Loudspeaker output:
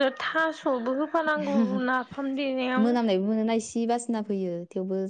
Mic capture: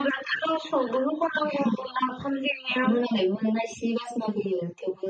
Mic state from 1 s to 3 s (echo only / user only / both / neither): echo only